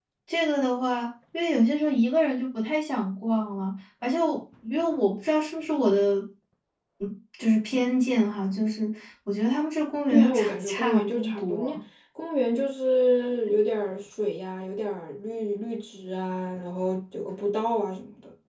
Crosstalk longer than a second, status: present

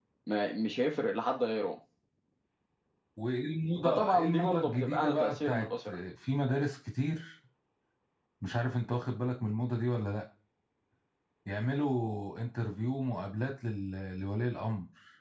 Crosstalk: present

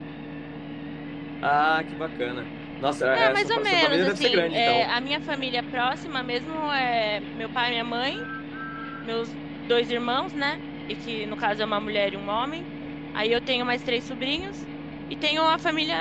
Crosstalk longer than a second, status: present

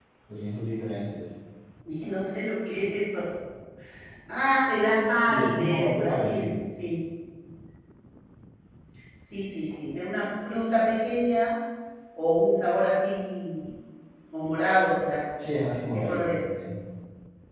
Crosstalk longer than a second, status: present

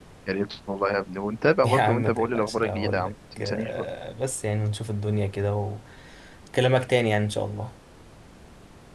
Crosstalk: present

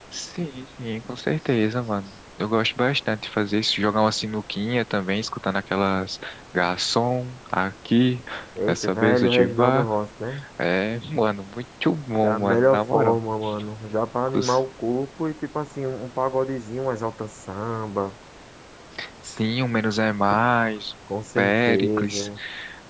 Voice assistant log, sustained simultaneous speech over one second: present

